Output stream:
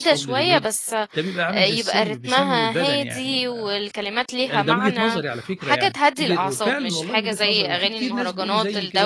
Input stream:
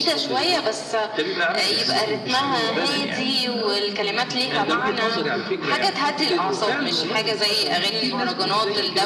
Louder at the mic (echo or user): echo